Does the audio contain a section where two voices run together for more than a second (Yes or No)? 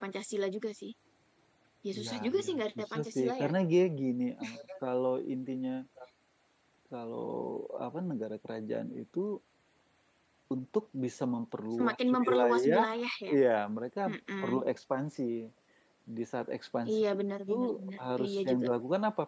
Yes